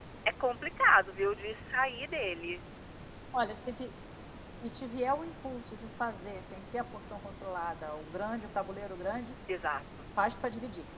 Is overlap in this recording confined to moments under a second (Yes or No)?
Yes